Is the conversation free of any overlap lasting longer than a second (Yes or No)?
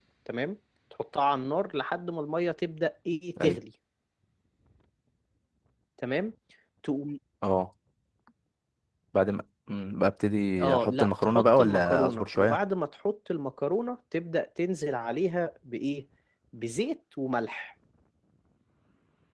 No